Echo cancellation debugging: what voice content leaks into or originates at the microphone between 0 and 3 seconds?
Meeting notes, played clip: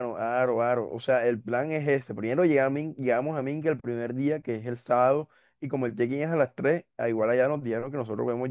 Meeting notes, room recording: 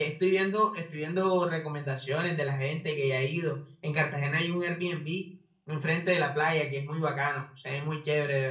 user only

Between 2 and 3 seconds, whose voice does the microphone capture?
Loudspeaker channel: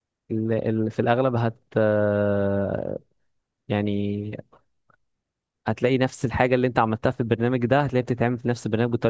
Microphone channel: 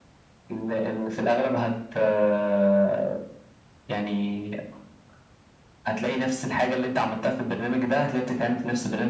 echo only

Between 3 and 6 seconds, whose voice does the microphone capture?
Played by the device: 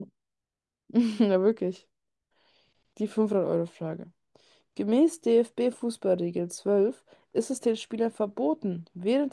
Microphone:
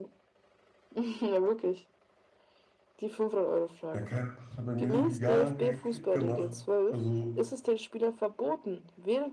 both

